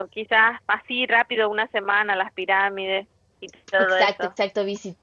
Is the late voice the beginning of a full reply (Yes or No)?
Yes